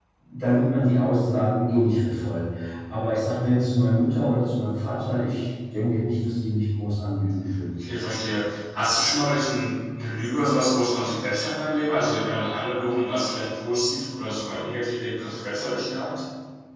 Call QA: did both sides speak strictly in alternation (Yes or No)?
Yes